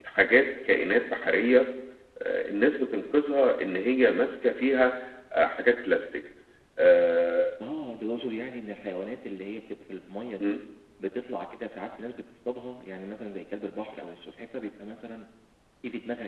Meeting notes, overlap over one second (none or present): none